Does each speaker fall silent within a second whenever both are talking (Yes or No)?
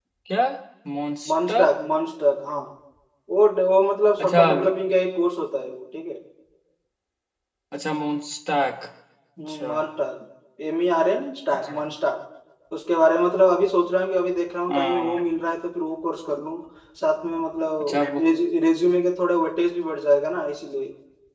Yes